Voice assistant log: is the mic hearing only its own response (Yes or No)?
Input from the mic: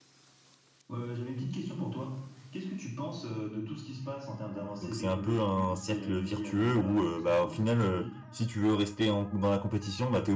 No